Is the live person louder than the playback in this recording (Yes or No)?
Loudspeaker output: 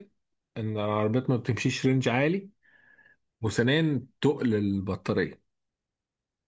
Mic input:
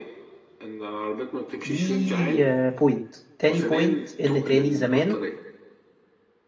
Yes